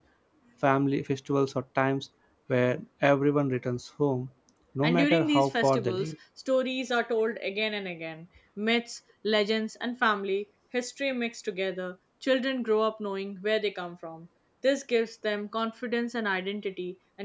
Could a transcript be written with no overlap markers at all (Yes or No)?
No